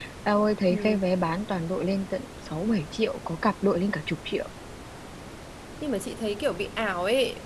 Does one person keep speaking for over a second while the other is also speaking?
No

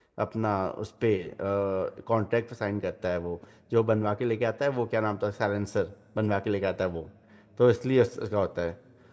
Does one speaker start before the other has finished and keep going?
No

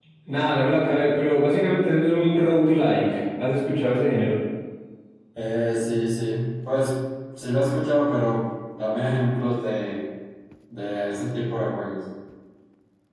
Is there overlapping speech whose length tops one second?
No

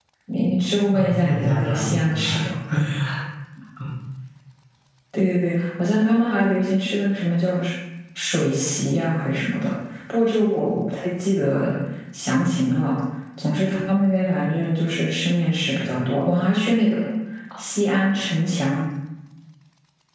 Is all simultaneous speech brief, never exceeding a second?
No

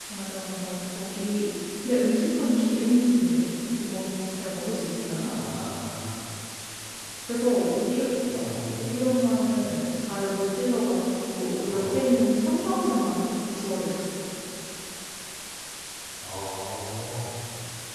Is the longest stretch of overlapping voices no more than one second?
Yes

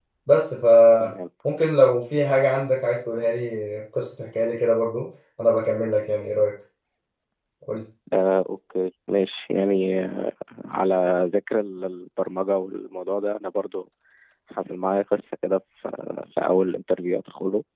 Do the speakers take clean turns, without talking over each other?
Yes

